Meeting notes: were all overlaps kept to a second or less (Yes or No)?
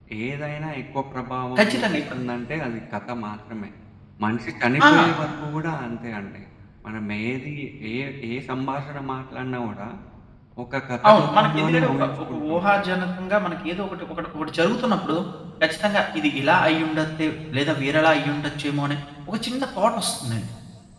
No